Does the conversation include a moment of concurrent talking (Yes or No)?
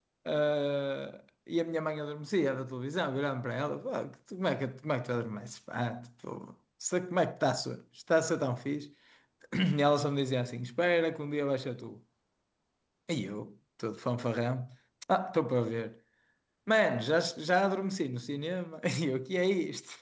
No